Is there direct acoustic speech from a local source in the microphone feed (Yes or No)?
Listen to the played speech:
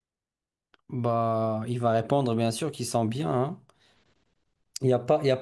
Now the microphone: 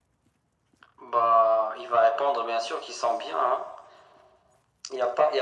No